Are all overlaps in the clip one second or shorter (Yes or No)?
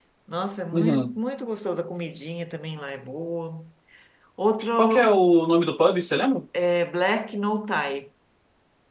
Yes